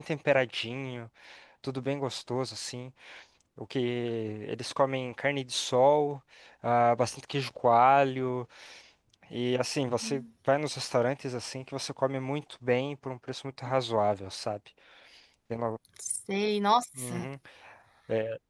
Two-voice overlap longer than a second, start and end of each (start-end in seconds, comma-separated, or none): none